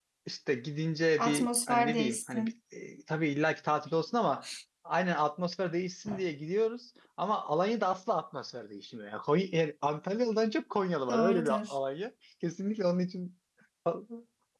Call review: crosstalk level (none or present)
present